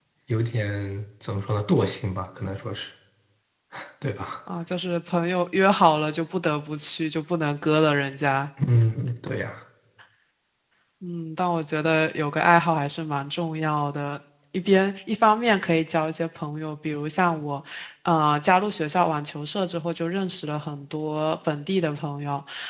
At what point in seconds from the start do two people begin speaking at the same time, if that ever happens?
none

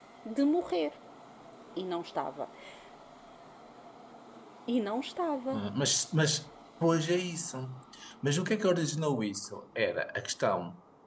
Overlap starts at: none

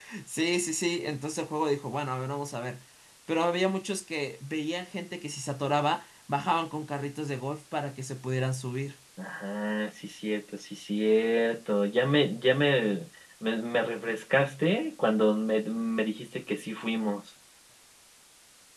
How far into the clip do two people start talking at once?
none

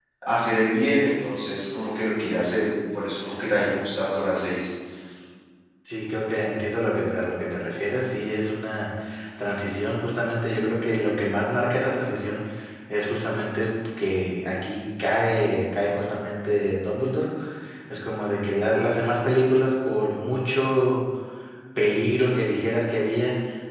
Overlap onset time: none

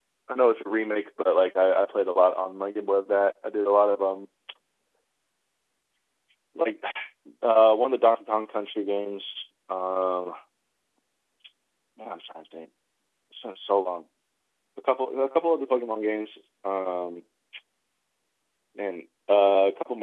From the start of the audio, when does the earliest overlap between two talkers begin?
none

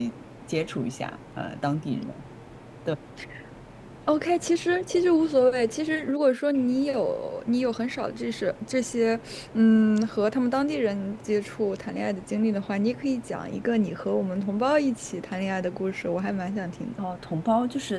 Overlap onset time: none

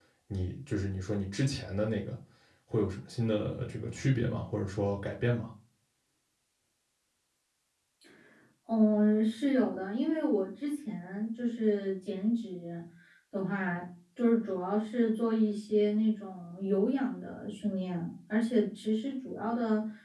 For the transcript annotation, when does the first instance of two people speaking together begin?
none

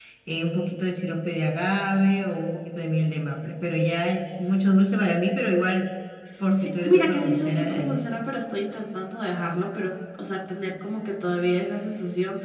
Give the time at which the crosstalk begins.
6.6 s

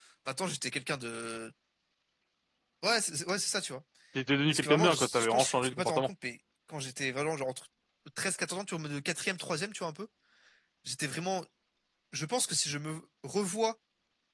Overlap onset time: 4.5 s

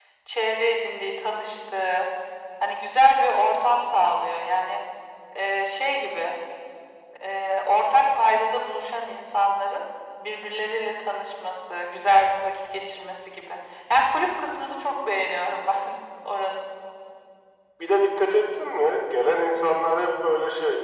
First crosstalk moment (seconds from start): none

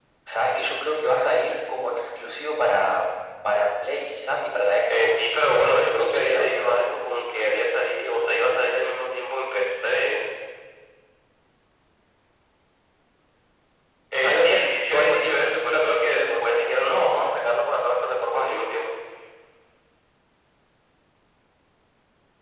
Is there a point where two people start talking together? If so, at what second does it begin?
4.9 s

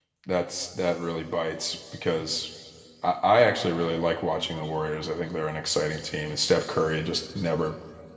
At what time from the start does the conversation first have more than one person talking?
none

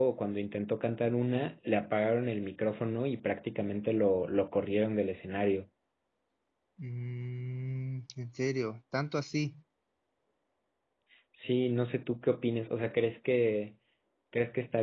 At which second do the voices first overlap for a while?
none

